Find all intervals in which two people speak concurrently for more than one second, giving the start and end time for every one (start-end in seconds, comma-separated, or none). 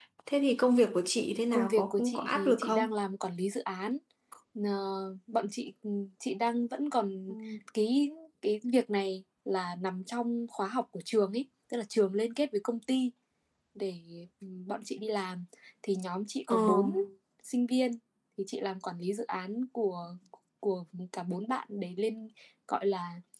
1.5-2.9